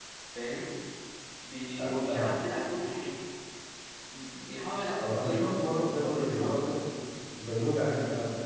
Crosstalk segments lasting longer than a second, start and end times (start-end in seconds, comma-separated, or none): 5.0-6.7